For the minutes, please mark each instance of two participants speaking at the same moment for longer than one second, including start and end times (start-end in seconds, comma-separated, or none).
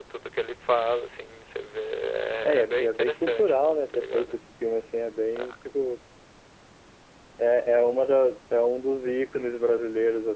2.5-4.4